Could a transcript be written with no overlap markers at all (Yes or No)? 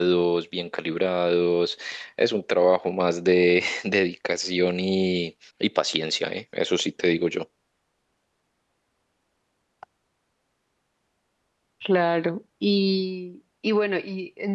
Yes